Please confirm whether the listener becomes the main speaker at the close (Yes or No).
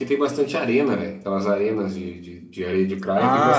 Yes